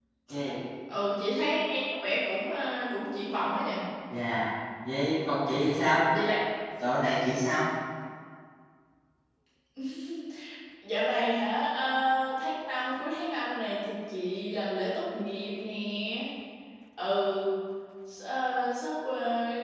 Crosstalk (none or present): none